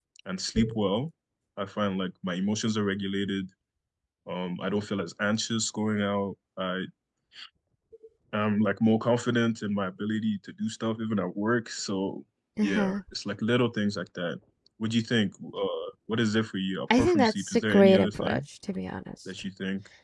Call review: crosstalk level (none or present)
present